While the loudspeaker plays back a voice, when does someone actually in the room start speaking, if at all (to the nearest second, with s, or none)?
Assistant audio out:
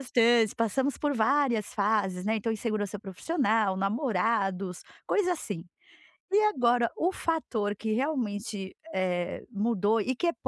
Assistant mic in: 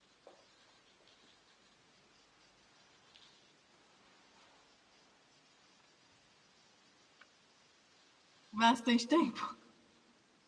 9 s